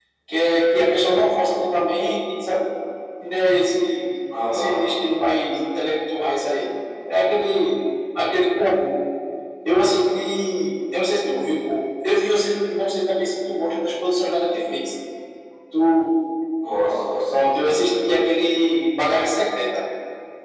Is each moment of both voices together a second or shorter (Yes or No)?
Yes